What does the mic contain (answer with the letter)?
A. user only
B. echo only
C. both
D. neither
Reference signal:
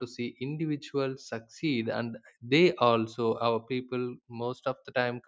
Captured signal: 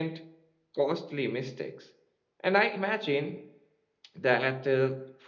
A